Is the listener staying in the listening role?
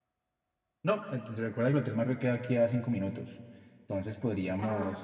Yes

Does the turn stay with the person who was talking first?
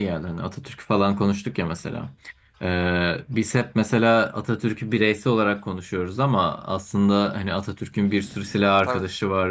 Yes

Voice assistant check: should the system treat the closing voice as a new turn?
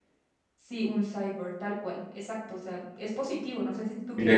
Yes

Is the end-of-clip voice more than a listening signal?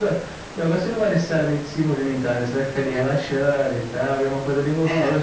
No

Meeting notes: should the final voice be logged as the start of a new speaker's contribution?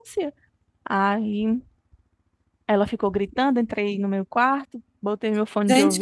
Yes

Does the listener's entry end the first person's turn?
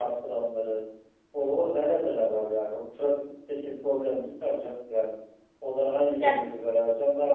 No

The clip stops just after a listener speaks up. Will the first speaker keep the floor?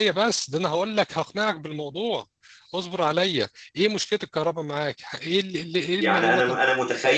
No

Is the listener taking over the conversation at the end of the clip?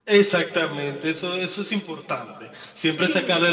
No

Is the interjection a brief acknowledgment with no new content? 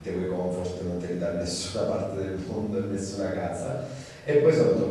Yes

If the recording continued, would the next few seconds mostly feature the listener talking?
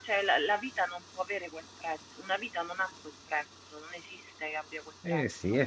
Yes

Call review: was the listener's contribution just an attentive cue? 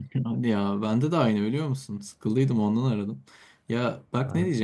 Yes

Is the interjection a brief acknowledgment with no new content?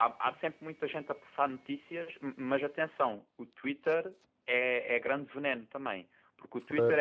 Yes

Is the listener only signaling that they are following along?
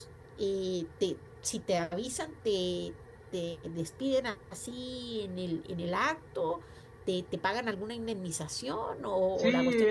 No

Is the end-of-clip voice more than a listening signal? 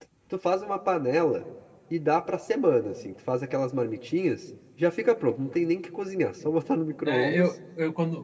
Yes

